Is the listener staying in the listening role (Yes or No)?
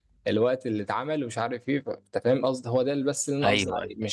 No